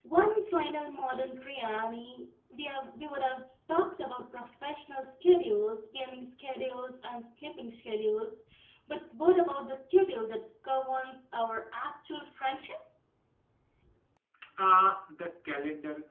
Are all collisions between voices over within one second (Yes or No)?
Yes